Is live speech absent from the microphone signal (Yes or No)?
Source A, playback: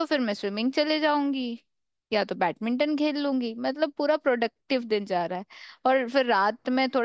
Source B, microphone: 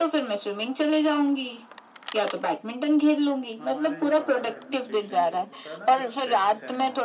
No